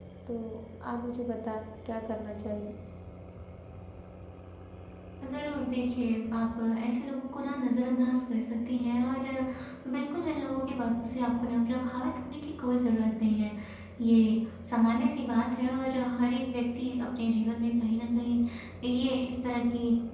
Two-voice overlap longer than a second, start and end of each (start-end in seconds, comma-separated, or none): none